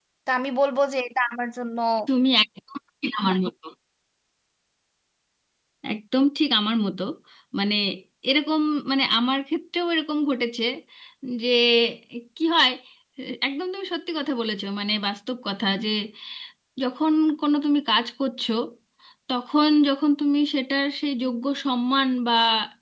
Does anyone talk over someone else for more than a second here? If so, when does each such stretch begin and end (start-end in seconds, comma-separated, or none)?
none